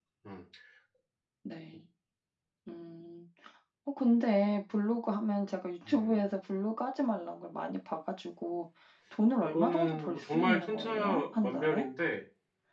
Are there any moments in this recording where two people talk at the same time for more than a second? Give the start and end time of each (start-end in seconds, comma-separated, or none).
9.4-11.8